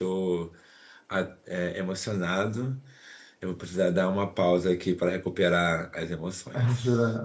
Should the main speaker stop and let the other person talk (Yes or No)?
Yes